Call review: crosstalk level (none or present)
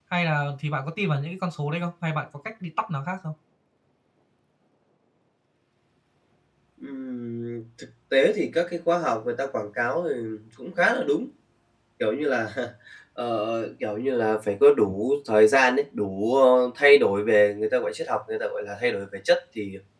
none